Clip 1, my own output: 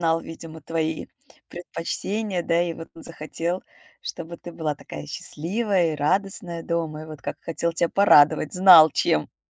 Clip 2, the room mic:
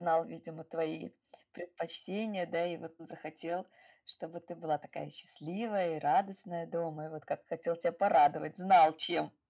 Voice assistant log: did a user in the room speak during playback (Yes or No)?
No